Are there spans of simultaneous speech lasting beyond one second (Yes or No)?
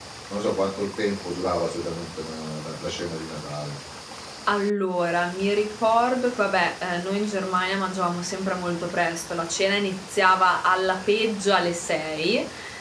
No